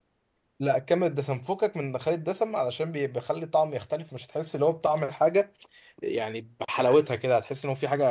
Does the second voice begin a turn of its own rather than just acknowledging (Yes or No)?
No